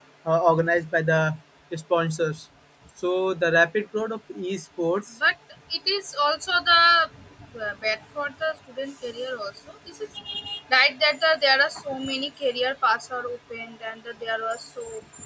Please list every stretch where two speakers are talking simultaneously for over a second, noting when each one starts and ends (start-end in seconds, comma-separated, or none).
none